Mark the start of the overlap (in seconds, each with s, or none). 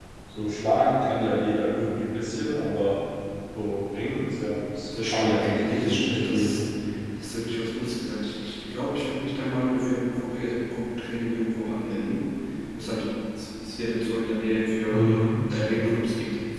4.9 s